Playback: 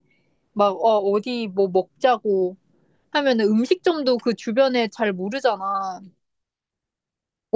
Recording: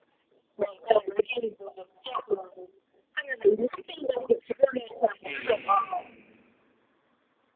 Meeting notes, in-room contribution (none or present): present